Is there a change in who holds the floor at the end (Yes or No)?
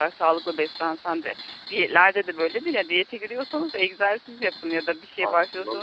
No